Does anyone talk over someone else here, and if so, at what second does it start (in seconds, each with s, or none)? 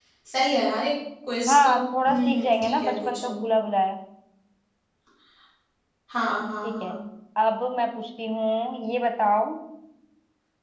1.5 s